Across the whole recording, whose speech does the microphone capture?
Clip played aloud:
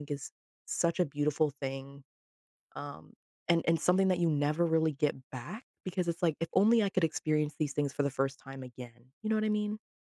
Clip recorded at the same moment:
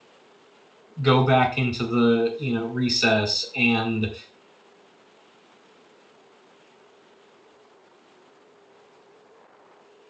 user only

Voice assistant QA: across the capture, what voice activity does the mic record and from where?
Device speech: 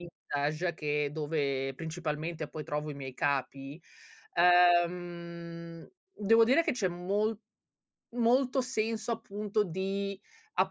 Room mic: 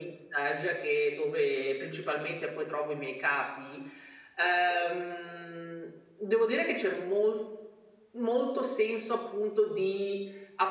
echo only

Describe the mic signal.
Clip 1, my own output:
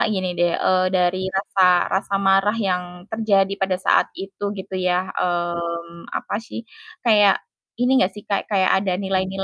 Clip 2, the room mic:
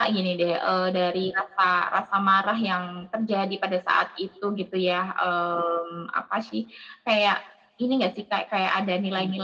echo only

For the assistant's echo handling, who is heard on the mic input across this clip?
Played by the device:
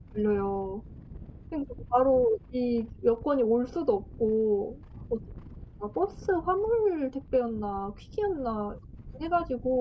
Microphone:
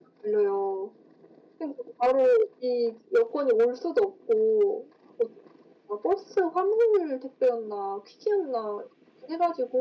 echo only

